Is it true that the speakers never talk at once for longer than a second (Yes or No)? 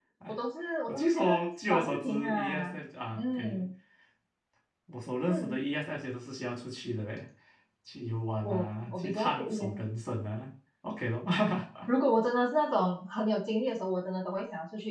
No